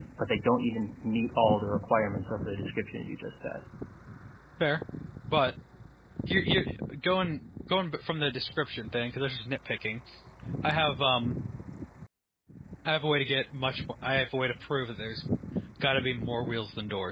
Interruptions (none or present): none